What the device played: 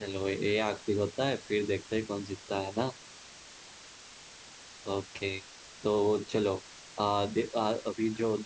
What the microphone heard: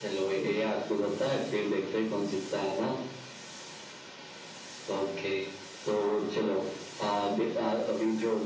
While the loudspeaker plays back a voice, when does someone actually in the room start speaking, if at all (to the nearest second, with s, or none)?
none